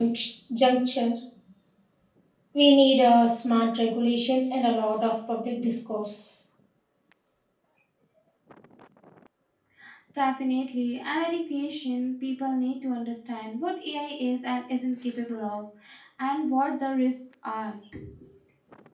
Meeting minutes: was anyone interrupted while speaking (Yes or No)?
No